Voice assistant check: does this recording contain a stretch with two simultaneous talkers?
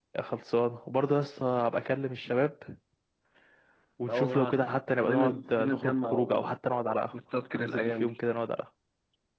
Yes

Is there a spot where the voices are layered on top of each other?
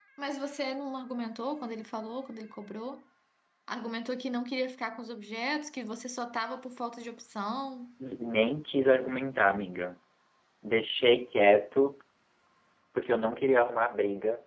No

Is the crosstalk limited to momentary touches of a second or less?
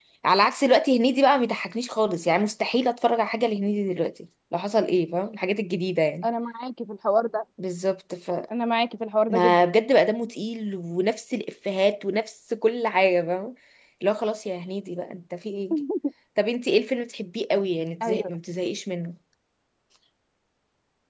Yes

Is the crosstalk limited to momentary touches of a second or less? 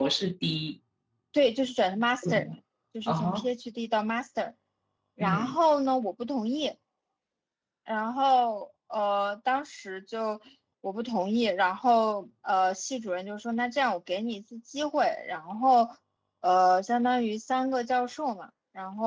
Yes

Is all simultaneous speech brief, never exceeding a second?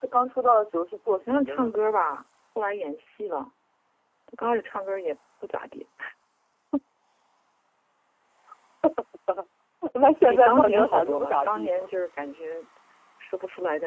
No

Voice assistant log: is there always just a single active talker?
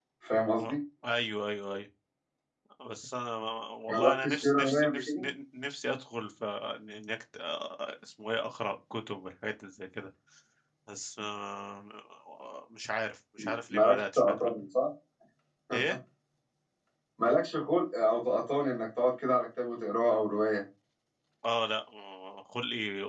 No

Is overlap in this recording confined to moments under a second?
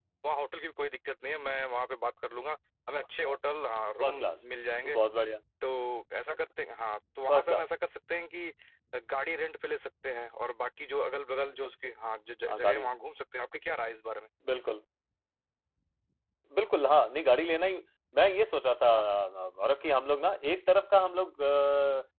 Yes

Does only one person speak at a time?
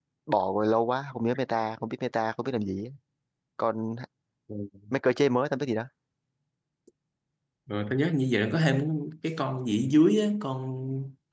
Yes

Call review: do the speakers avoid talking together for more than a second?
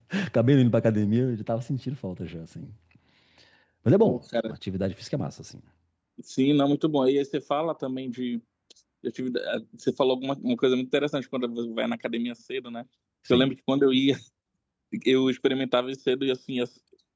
Yes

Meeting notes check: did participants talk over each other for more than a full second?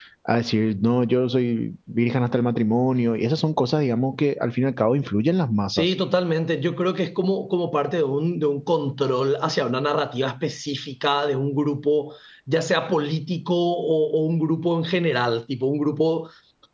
No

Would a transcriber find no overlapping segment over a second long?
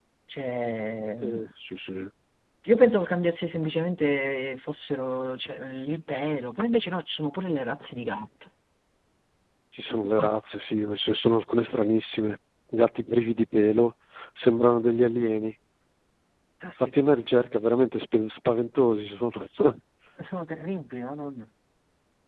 Yes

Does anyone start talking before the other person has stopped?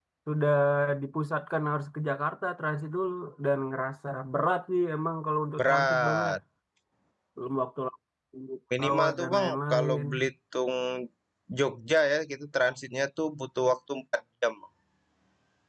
Yes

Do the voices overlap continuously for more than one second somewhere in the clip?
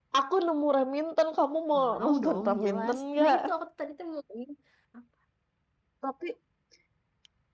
Yes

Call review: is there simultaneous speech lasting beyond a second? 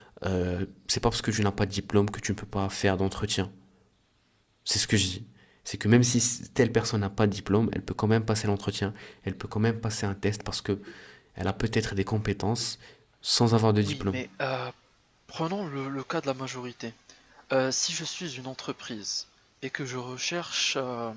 No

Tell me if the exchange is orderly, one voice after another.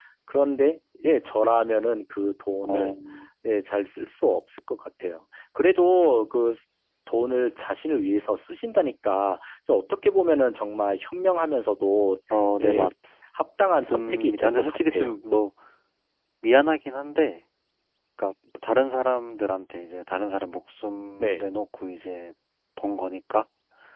No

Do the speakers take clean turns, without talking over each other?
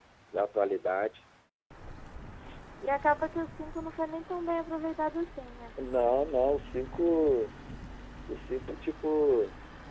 Yes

